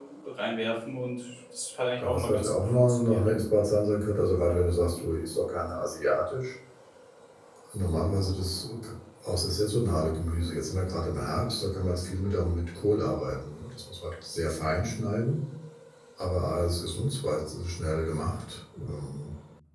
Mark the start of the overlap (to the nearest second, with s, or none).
2 s